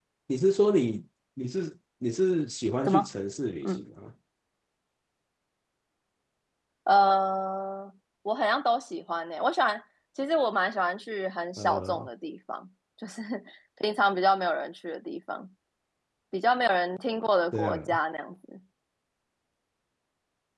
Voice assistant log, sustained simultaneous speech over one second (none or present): none